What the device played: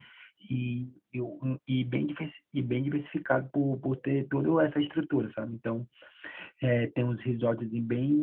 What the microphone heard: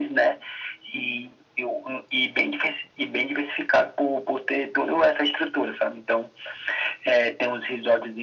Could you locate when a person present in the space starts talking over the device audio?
none

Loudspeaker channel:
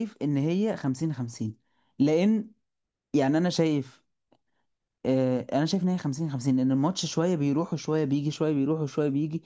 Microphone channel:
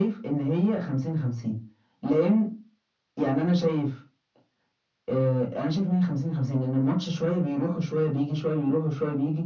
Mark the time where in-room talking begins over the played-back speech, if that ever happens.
none

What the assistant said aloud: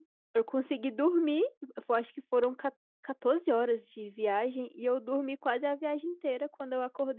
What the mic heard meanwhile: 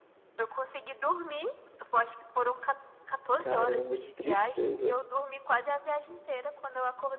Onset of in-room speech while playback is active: 3.4 s

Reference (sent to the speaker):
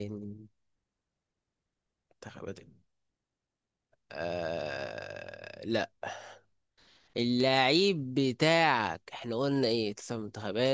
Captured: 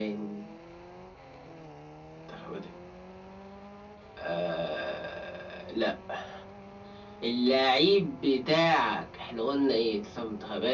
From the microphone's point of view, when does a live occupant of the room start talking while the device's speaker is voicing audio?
none

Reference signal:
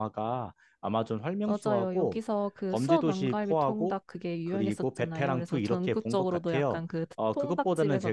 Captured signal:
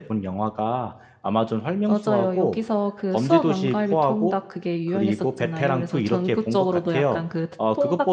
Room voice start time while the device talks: none

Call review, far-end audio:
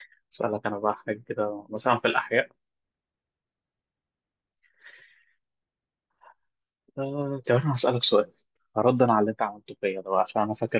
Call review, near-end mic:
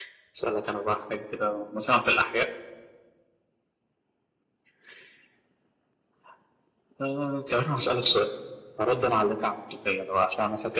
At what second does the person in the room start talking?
none

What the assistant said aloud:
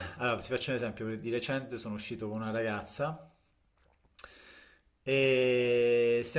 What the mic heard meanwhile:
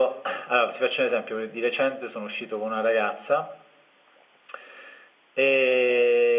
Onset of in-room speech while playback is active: none

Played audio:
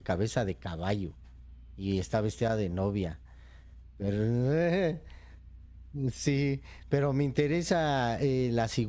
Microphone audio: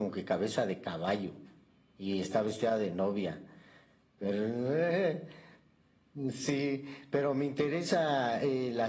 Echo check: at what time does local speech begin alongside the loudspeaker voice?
none

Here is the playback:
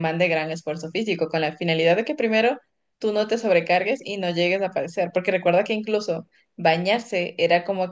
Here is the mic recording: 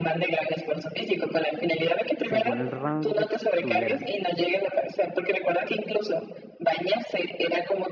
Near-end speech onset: 2.2 s

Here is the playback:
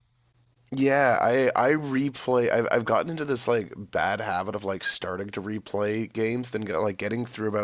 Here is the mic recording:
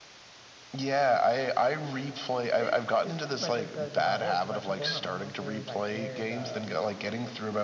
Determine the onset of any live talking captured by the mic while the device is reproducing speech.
2.6 s

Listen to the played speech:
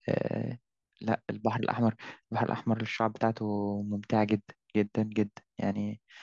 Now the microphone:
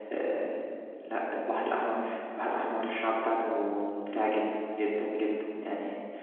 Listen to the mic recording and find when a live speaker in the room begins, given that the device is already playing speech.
none

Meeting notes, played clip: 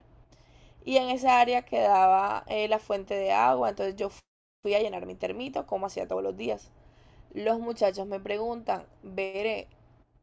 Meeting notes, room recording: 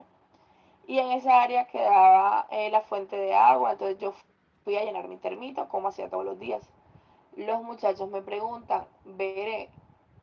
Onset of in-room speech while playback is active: none

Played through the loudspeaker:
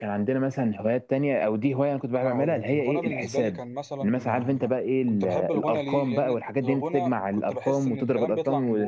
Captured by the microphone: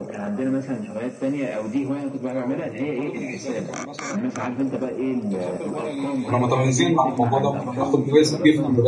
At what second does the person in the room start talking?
6.2 s

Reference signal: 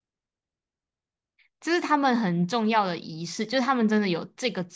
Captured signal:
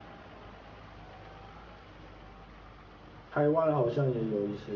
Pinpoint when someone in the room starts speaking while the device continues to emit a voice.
3.3 s

